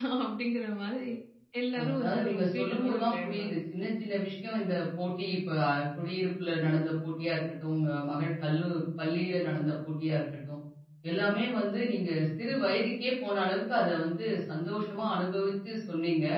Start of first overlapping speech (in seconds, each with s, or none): 1.8 s